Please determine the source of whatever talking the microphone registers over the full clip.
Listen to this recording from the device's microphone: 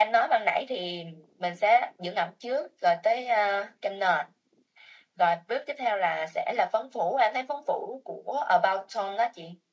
echo only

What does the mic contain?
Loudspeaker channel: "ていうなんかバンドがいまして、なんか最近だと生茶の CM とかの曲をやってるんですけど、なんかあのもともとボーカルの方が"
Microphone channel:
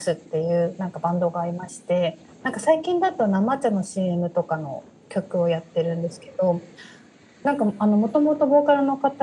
echo only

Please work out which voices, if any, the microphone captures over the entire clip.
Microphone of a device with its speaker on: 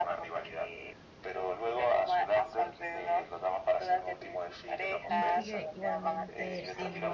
both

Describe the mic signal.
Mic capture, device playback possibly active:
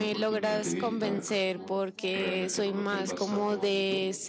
both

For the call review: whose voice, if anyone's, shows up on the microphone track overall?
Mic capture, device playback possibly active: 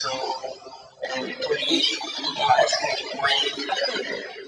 echo only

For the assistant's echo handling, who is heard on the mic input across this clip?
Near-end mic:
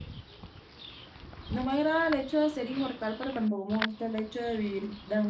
user only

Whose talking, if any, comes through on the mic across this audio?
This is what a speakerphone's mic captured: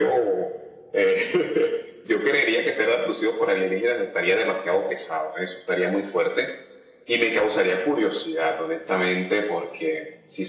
echo only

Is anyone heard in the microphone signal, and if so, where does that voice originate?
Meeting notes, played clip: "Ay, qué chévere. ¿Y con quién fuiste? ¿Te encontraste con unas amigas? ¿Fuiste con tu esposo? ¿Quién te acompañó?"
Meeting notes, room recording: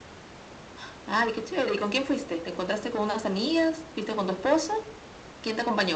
echo only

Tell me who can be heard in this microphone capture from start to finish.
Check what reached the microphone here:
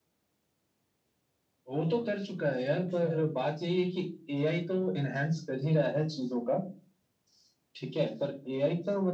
both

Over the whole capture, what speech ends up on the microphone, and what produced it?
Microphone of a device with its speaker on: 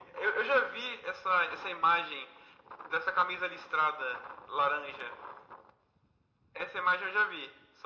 echo only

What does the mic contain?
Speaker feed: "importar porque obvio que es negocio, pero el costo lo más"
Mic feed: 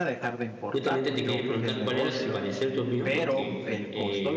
both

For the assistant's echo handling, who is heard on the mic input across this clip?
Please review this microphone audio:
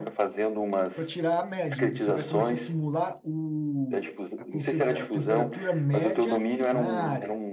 both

